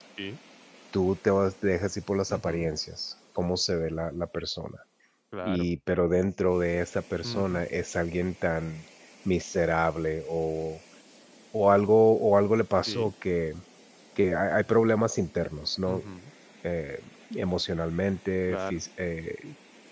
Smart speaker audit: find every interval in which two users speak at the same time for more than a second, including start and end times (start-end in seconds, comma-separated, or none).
none